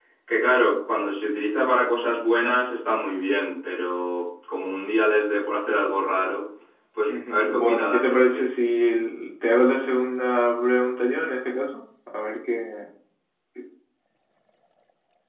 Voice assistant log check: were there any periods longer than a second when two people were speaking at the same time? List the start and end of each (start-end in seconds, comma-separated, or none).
7.1-8.4